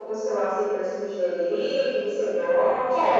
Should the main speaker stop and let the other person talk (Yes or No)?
Yes